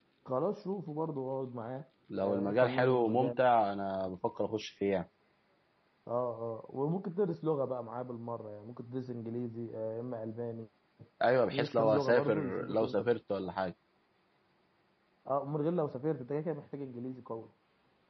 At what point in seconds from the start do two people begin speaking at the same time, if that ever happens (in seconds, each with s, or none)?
2.2 s